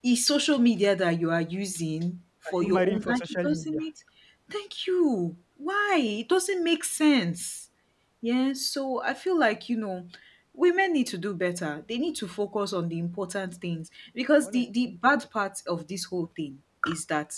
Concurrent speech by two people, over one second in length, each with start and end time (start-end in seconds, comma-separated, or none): 2.5-3.8